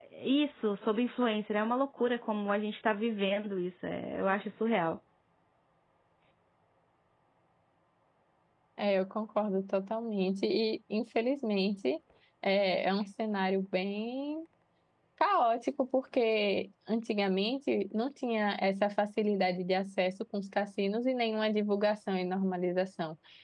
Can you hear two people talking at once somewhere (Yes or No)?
No